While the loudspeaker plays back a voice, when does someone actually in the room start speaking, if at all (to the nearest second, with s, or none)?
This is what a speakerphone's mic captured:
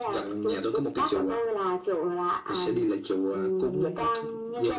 none